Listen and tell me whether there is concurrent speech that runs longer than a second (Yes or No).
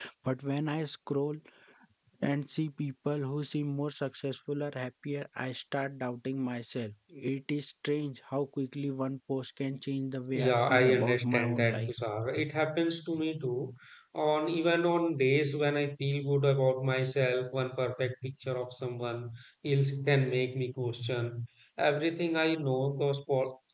Yes